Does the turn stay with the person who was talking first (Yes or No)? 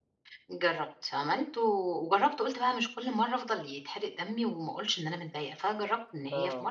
Yes